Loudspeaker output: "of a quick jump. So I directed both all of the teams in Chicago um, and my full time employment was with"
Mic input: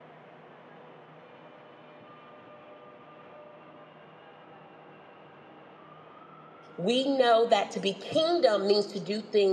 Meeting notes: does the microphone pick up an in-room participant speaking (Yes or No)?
Yes